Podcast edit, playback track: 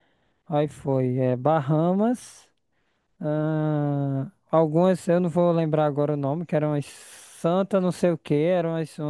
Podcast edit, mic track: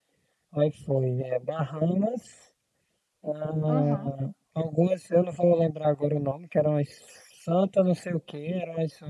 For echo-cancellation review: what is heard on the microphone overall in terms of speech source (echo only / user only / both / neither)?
both